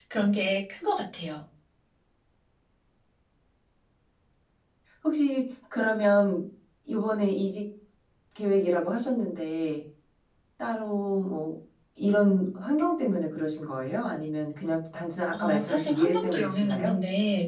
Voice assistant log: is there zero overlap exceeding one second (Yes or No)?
No